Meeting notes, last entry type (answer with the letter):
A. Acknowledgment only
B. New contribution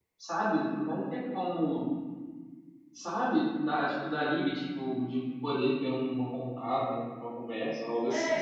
B